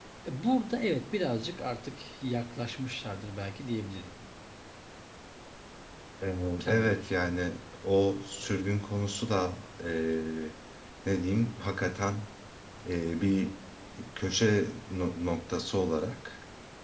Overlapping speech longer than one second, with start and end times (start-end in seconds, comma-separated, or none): none